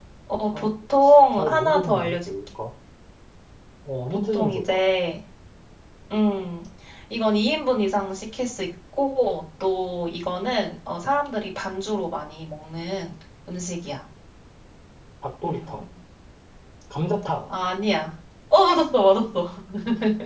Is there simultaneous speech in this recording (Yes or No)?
Yes